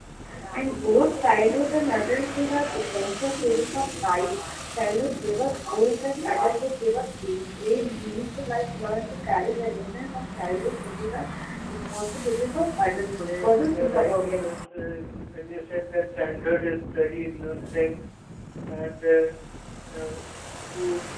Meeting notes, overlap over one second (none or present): present